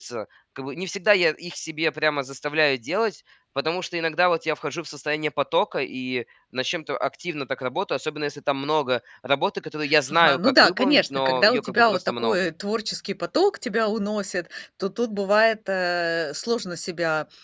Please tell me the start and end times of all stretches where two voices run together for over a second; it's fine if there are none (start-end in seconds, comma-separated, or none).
10.1-12.4